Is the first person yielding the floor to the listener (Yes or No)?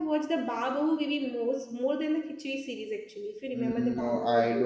Yes